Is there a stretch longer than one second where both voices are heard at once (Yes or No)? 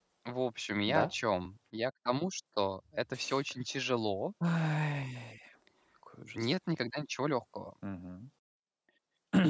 No